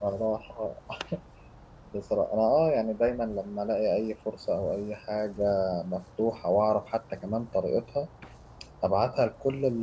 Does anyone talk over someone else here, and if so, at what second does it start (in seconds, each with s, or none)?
none